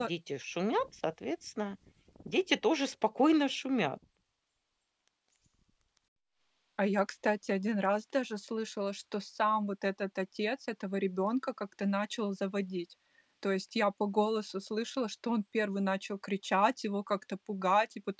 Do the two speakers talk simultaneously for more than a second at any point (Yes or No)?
No